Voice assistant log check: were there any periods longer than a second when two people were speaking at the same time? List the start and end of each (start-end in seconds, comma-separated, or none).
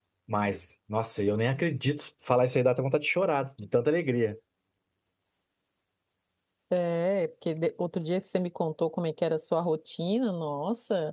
none